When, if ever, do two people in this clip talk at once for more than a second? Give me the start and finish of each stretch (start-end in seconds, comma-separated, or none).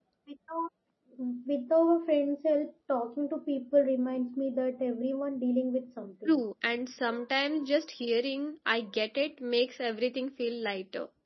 none